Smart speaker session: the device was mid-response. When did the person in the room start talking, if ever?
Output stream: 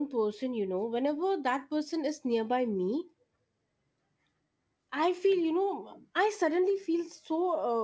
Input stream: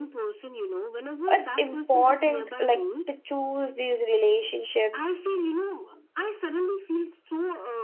1.3 s

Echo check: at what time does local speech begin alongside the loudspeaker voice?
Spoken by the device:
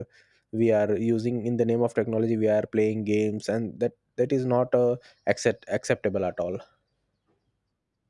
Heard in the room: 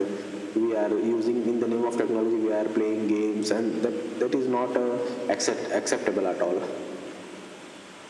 none

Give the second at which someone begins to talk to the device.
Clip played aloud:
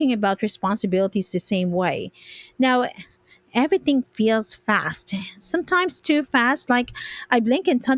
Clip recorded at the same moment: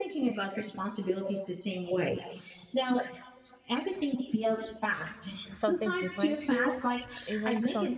5.5 s

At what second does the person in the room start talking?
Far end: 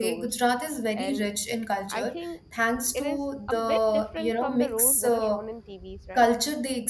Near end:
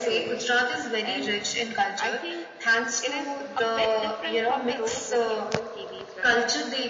none

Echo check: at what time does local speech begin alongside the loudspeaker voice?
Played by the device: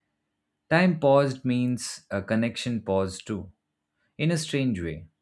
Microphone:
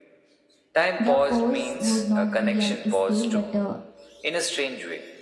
1.0 s

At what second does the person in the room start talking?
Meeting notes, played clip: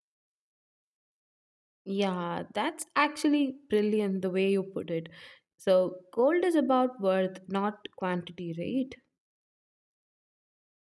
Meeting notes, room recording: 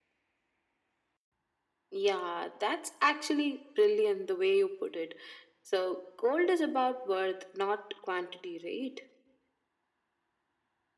none

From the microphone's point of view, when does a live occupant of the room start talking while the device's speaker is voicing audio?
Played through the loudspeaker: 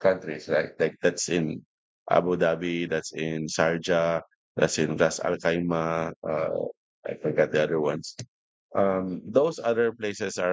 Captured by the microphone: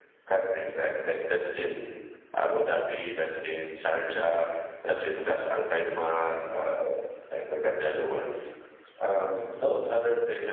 none

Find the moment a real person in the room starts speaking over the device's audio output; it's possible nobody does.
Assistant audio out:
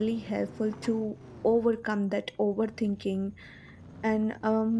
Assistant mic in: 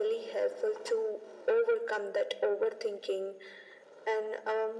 none

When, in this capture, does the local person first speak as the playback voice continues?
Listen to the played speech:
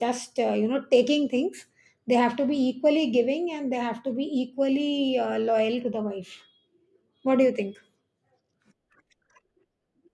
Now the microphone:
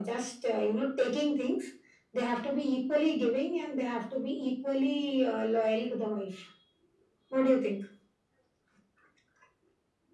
none

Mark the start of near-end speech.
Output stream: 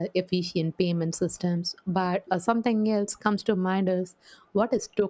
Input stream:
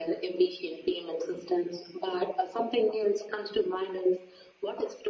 none

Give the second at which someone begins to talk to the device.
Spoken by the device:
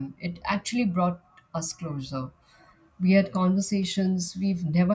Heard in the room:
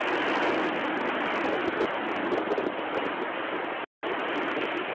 none

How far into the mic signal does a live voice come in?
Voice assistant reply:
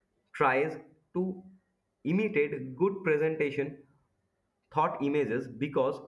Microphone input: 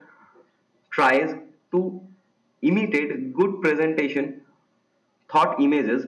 none

